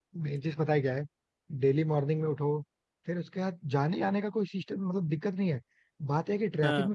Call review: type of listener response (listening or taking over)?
listening